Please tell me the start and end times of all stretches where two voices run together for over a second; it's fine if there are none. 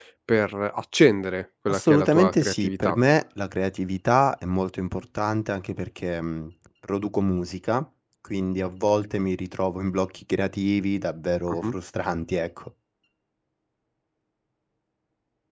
1.7-3.0

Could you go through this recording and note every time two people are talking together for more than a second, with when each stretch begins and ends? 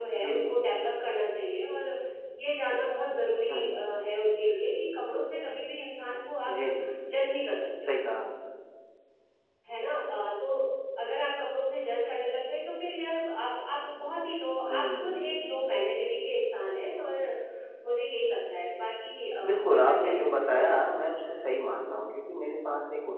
19.4-20.9

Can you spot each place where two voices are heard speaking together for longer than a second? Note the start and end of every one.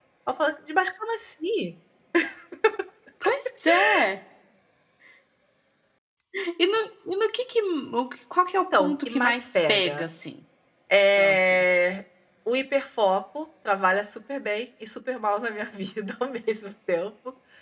8.8-10.0

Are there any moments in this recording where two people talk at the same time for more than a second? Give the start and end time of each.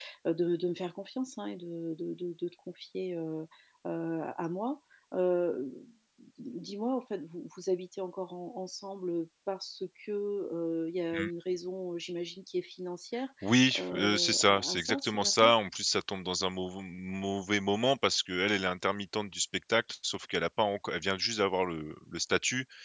13.8-15.5

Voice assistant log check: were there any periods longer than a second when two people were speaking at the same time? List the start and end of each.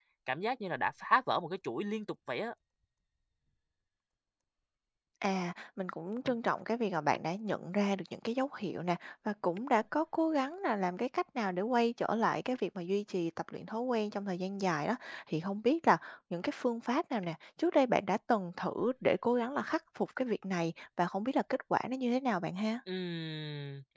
none

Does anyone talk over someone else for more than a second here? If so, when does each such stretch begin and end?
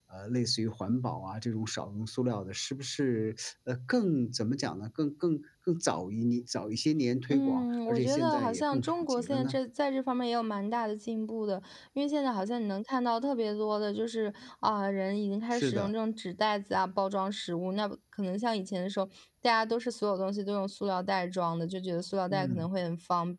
7.3-9.6

